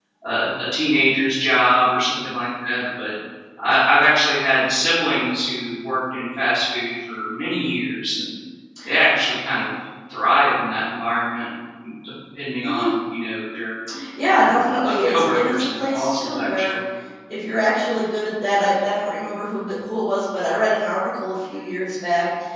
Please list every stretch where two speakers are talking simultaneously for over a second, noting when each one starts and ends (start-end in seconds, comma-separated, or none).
14.4-16.8